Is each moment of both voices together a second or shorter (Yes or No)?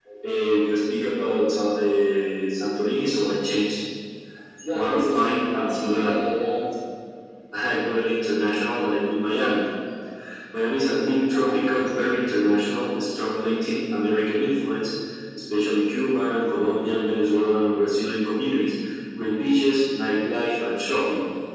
No